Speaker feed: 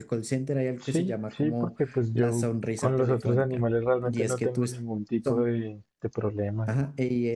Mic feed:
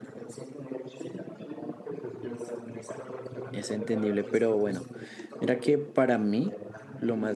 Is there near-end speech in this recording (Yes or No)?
Yes